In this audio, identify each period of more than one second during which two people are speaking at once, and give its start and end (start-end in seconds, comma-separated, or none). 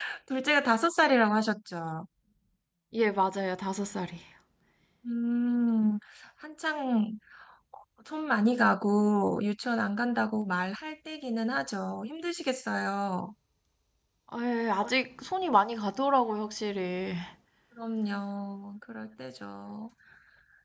none